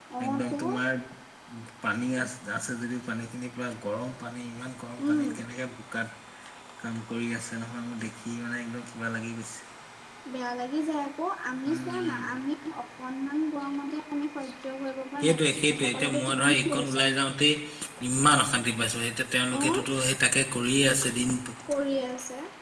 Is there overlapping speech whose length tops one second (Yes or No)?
Yes